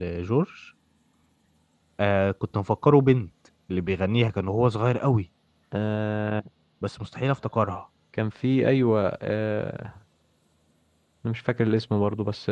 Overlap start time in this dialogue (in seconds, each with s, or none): none